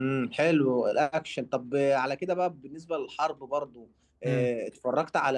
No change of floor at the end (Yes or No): Yes